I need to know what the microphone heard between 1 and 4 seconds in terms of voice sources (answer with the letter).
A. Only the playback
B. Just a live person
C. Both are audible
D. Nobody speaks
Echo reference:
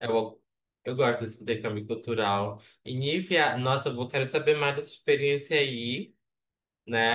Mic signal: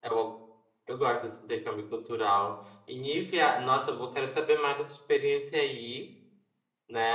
A